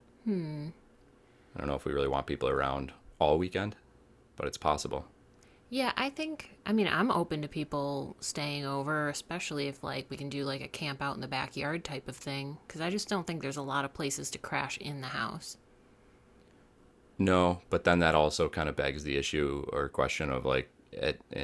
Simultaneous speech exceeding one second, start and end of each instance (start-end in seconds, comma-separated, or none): none